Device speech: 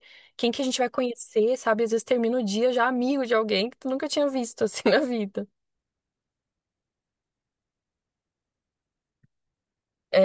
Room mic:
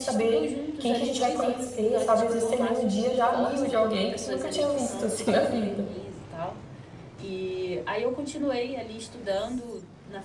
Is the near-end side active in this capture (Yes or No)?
Yes